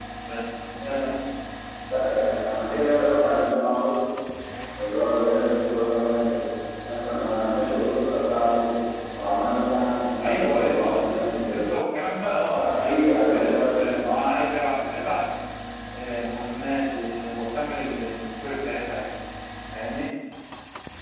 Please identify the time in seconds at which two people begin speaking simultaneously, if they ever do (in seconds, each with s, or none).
10.2 s